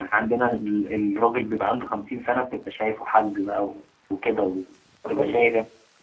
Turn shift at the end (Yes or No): Yes